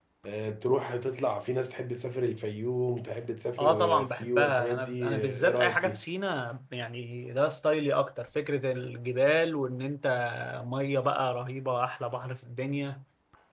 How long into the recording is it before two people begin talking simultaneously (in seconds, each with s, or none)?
3.6 s